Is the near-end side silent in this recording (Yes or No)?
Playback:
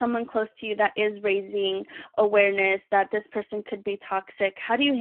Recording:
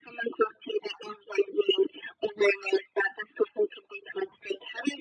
Yes